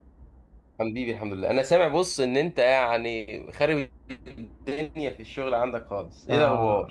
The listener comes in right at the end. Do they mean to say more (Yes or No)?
Yes